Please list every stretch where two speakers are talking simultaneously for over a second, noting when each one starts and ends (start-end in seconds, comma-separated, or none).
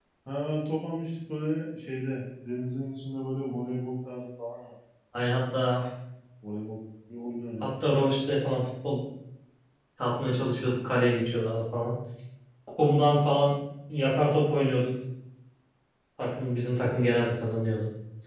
none